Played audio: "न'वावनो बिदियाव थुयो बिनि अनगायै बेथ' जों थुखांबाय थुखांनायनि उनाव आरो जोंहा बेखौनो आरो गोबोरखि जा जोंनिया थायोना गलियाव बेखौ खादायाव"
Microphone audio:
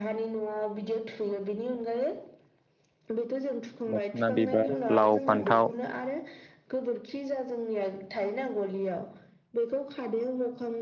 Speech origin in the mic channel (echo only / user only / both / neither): both